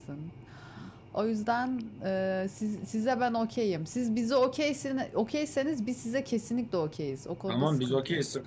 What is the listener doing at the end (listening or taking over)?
taking over